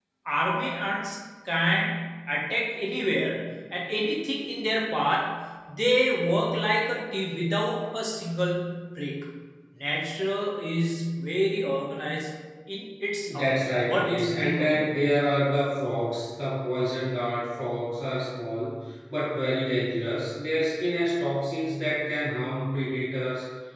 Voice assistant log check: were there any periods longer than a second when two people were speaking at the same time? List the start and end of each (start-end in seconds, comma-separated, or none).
13.3-14.9